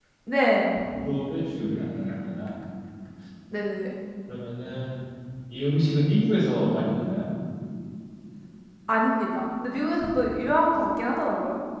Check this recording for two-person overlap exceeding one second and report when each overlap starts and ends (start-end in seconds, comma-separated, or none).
none